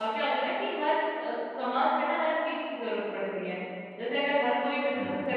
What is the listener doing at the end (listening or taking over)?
listening